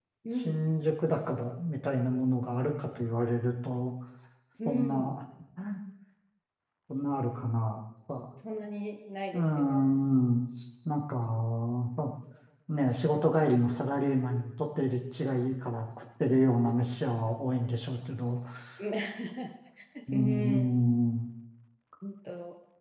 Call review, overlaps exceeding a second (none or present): none